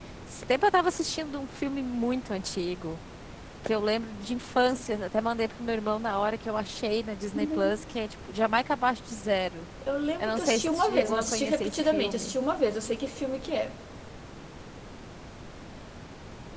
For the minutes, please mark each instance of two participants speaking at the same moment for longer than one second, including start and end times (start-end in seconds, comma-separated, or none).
10.2-12.3